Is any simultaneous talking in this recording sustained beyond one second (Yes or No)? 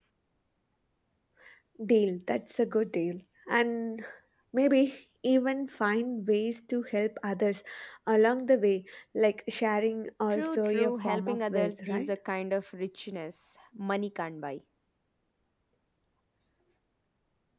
Yes